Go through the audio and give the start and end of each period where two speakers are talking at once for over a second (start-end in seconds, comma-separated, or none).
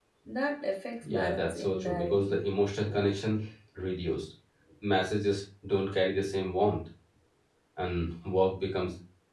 1.0-2.4